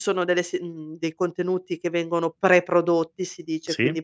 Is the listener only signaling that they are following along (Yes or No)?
Yes